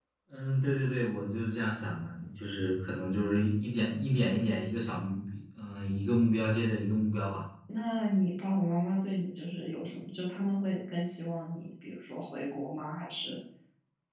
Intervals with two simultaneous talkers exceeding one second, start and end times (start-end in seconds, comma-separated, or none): none